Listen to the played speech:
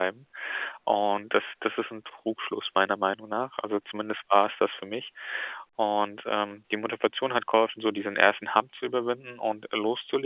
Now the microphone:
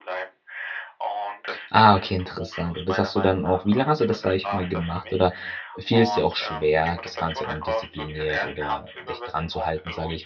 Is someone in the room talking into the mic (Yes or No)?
Yes